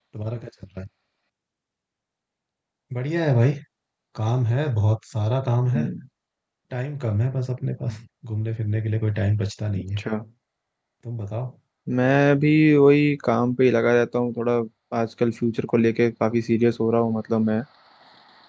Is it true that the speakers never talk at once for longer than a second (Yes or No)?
Yes